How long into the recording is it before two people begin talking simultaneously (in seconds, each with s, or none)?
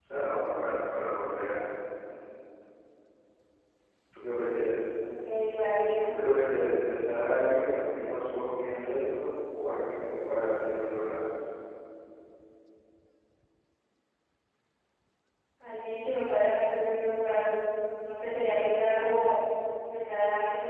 none